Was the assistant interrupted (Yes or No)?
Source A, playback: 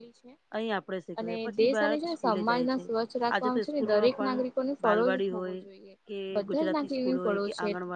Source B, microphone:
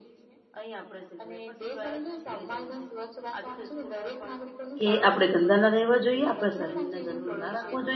Yes